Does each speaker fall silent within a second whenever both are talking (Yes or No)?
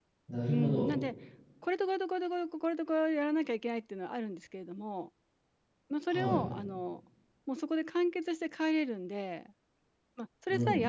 Yes